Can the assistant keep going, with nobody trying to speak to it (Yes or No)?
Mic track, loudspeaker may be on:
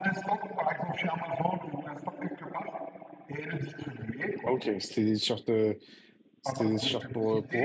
No